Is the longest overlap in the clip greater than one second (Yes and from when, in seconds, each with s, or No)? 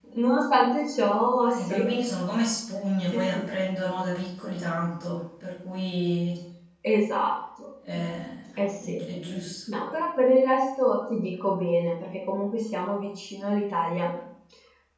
No